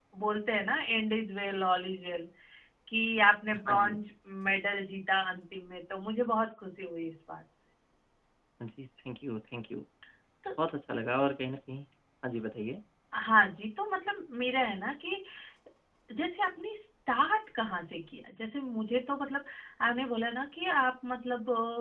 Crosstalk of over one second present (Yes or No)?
No